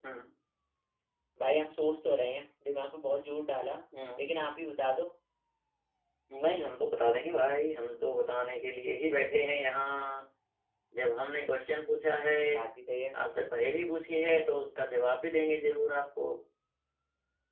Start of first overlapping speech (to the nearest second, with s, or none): none